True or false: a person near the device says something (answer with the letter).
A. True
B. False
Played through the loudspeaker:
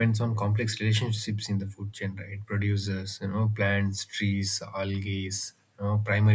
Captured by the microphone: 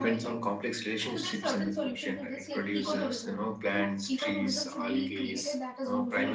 A